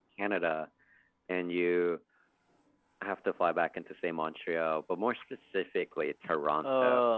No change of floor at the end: Yes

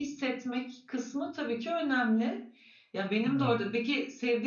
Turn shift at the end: No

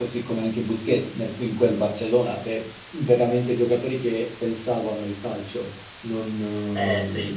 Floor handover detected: Yes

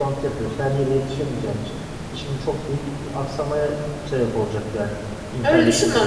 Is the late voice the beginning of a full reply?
Yes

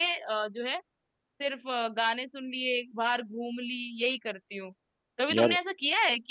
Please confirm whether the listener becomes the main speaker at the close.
No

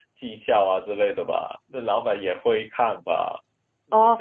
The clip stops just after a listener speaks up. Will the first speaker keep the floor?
No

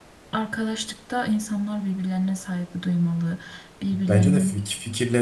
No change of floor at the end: No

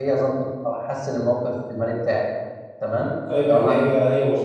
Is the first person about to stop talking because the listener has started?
Yes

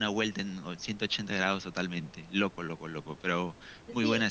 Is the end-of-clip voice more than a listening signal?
Yes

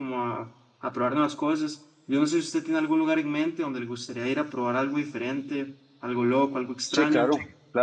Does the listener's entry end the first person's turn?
Yes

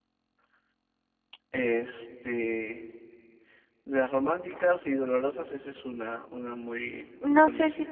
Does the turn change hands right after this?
Yes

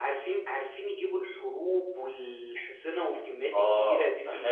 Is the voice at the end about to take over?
Yes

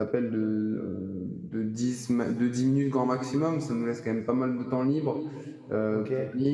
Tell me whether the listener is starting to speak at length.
No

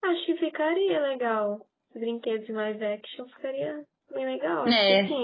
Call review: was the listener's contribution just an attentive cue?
No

